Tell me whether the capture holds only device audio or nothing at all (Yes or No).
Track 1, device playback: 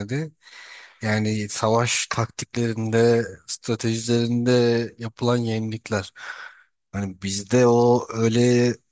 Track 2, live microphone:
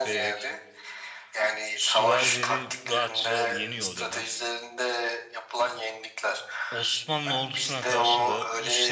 No